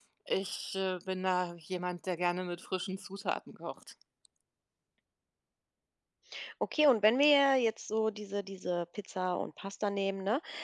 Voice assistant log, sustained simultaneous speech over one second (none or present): none